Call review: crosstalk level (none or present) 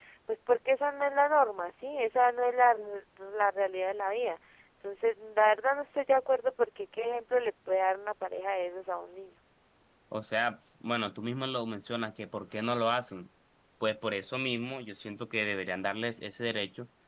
none